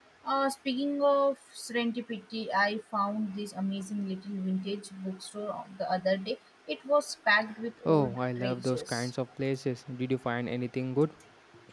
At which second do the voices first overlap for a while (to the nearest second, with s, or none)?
8 s